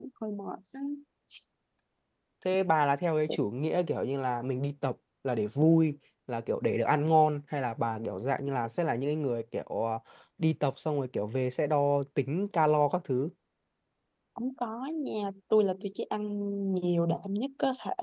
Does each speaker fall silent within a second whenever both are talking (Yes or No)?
Yes